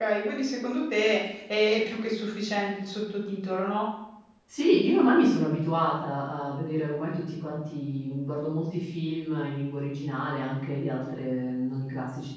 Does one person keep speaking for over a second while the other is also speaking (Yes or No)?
No